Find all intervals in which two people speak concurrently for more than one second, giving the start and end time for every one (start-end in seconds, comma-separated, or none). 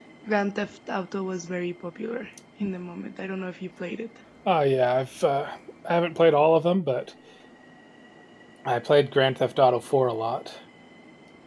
none